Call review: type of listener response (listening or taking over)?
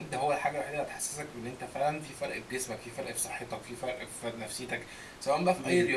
listening